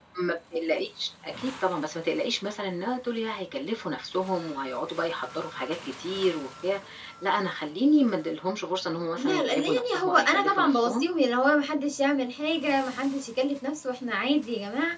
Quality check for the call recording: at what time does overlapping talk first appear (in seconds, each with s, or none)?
9.2 s